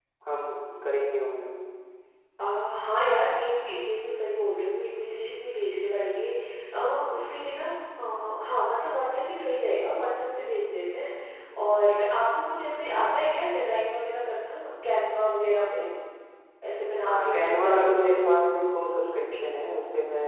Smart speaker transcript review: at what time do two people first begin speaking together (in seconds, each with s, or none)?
17.0 s